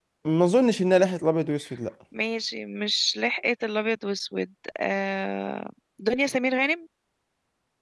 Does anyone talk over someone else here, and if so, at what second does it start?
none

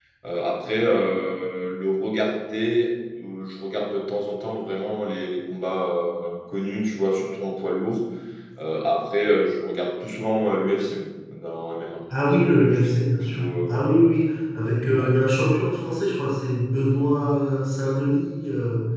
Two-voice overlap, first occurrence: 12.1 s

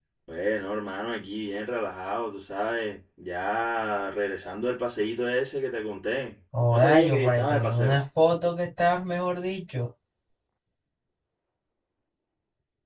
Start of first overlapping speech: 6.5 s

